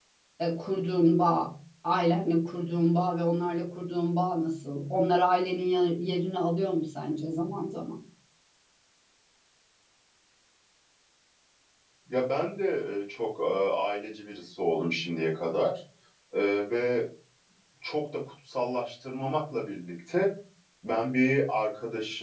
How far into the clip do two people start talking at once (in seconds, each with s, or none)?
none